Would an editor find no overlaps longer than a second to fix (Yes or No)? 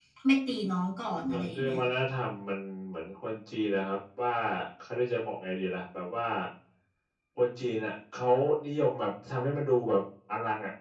Yes